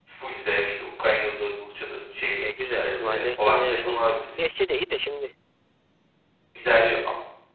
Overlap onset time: 2.4 s

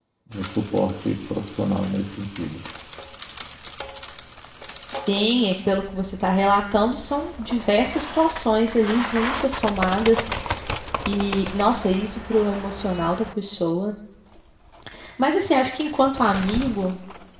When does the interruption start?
none

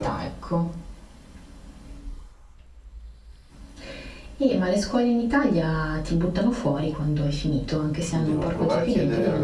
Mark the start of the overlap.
8.1 s

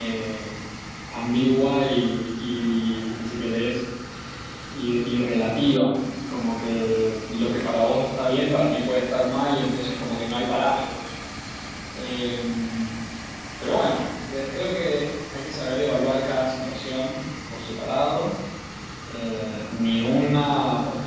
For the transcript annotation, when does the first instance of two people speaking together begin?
none

